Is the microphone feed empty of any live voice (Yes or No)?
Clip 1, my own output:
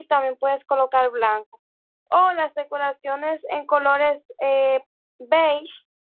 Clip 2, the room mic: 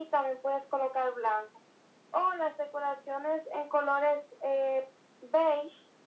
Yes